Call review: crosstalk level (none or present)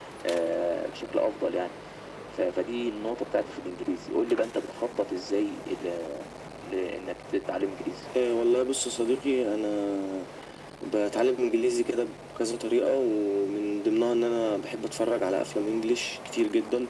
none